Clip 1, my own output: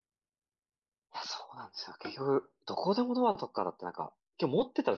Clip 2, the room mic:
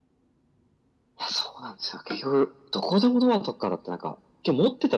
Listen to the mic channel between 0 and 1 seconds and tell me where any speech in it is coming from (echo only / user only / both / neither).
neither